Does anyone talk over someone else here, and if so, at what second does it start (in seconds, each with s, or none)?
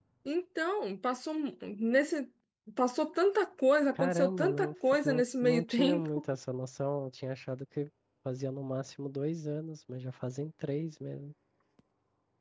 4.0 s